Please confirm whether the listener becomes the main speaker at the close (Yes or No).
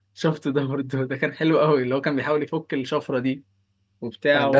Yes